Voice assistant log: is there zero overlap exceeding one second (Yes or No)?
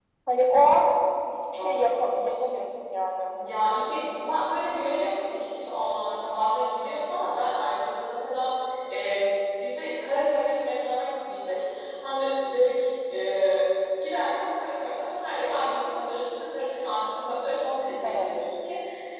Yes